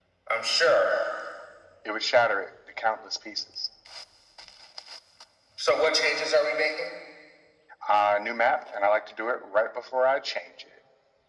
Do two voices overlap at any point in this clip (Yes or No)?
No